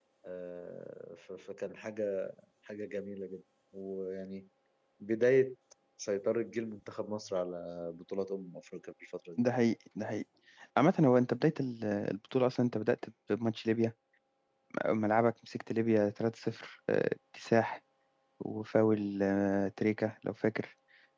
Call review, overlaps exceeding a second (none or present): none